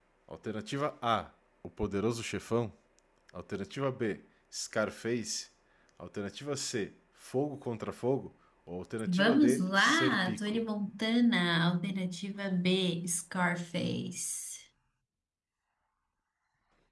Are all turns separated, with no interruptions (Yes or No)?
No